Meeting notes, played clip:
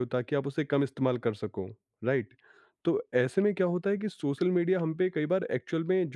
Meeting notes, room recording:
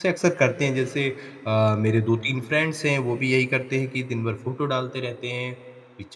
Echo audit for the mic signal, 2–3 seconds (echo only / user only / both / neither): user only